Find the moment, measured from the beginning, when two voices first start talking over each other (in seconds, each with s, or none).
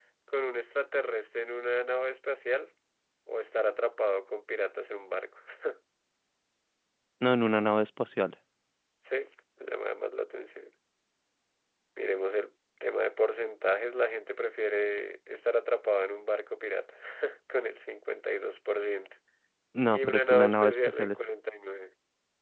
19.9 s